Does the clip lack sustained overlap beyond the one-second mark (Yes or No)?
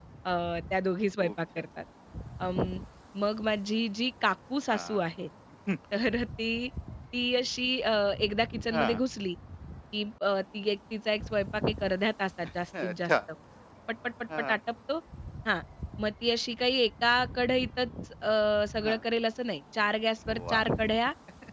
Yes